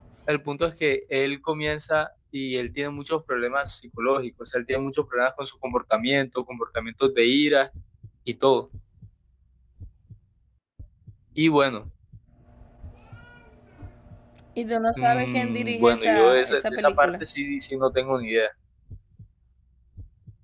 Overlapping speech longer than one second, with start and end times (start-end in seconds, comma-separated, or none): 15.0-17.2